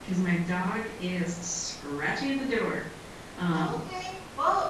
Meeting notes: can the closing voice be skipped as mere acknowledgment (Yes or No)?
No